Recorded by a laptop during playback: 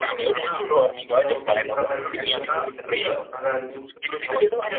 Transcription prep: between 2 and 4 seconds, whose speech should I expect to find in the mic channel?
both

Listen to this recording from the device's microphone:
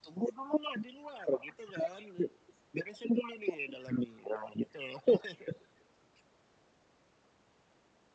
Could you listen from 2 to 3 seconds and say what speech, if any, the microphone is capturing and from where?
echo only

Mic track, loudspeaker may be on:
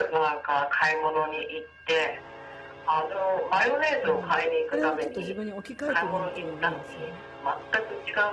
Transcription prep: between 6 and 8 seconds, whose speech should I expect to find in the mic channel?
both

